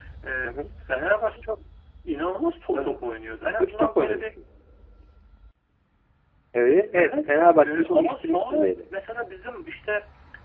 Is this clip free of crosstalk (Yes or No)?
No